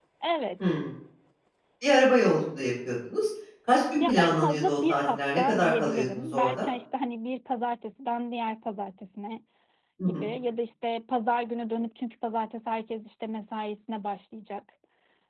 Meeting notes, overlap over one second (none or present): present